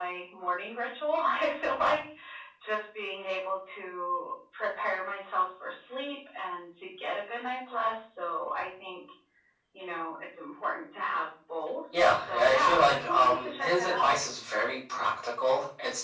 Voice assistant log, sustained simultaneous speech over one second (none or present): present